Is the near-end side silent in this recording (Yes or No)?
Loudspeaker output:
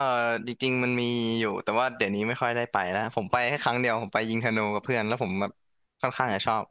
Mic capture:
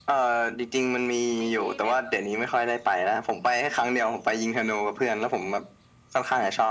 No